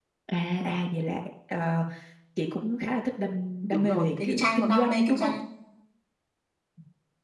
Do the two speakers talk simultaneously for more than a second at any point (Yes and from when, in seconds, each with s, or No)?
Yes, from 3.7 s